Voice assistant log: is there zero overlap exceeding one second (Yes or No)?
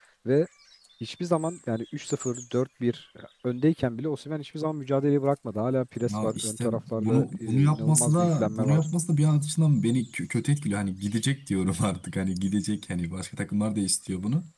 No